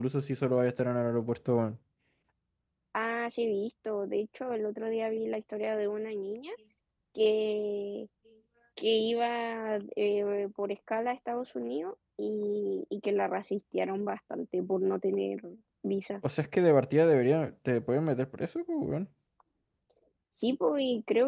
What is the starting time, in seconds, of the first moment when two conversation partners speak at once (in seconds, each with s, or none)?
none